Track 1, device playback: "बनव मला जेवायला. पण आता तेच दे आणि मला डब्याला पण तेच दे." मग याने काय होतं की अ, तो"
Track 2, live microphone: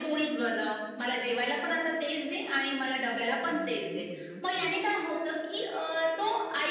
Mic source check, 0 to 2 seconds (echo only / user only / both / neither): echo only